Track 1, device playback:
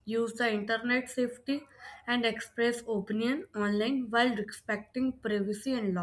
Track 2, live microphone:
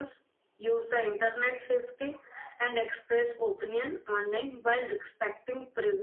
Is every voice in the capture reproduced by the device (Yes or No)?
Yes